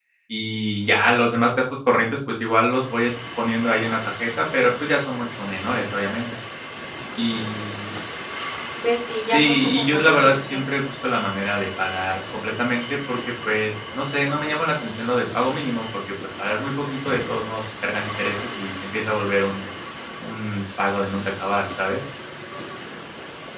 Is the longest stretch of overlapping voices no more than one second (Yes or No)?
No